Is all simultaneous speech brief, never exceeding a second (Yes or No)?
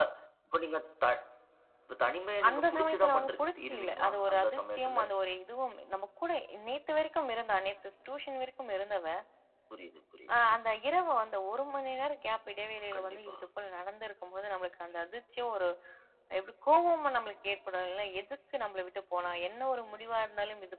No